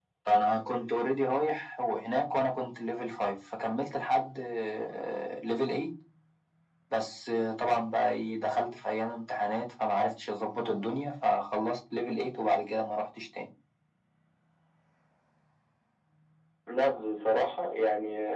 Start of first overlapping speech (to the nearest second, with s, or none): none